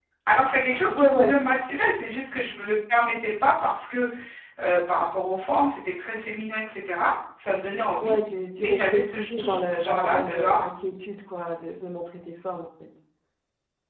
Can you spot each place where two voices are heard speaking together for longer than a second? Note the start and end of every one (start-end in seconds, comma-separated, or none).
8.6-10.6